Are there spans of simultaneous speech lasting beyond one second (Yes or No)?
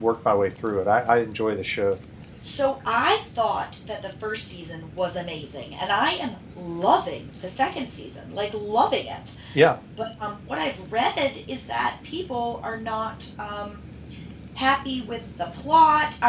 No